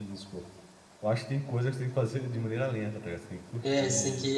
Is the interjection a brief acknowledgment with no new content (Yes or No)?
No